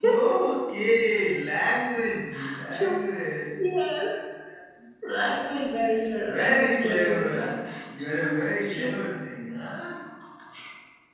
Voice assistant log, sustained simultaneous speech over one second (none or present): present